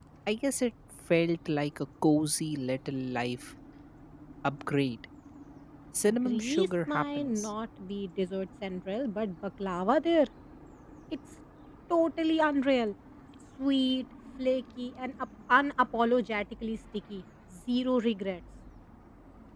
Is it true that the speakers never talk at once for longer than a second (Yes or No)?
No